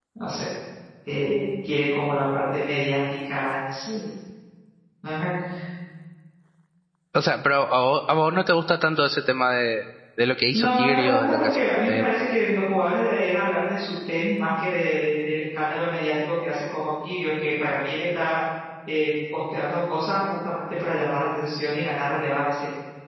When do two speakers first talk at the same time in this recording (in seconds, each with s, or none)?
10.5 s